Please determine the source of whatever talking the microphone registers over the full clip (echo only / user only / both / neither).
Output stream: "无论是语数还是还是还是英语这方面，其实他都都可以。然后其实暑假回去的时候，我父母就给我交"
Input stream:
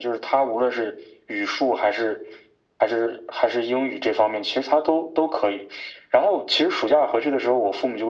echo only